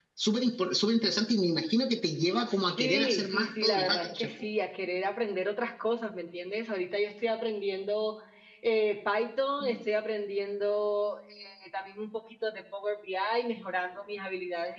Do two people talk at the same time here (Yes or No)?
Yes